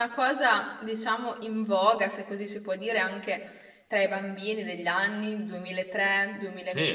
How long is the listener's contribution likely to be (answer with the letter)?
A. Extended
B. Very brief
A